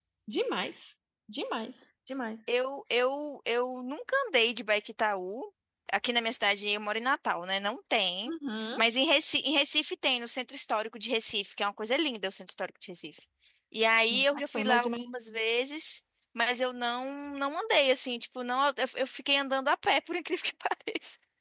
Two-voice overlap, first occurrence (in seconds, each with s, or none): 14.1 s